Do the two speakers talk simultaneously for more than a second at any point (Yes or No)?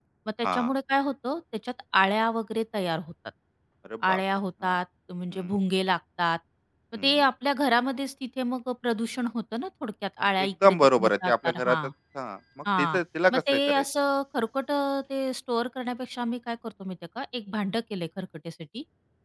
Yes